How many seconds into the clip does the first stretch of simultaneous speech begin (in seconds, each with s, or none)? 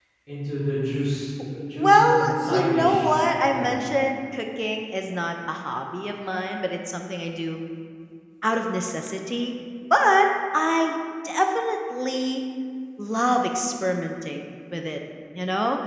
1.8 s